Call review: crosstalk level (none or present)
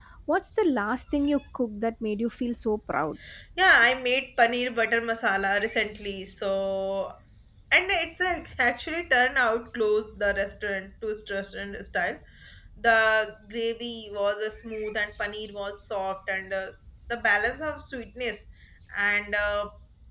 none